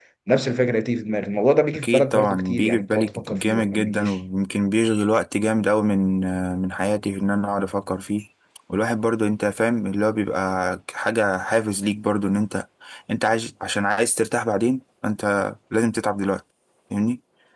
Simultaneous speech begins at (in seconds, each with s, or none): 1.7 s